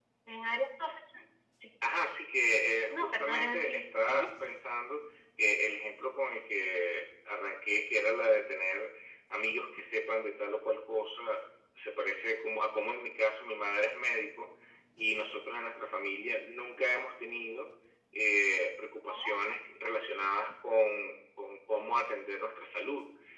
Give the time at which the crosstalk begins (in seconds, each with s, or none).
2.9 s